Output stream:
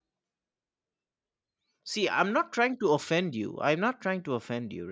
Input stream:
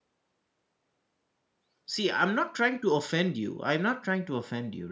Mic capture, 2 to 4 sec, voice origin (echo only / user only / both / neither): echo only